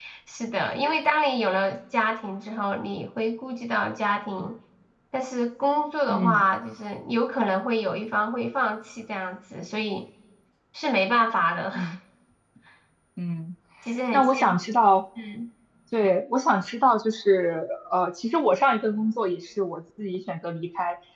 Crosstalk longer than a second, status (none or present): none